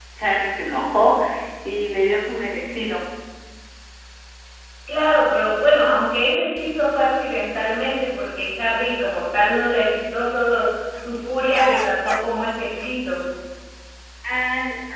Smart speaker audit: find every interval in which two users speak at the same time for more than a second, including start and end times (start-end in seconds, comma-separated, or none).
none